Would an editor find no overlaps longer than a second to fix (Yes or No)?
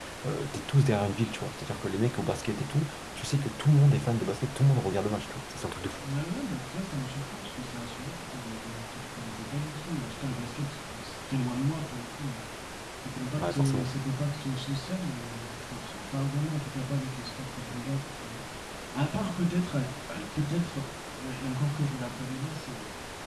Yes